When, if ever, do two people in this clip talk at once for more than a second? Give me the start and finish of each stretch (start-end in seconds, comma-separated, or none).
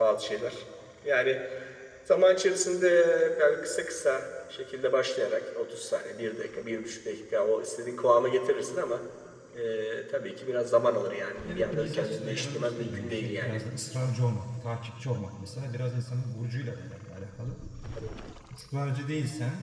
11.4-13.6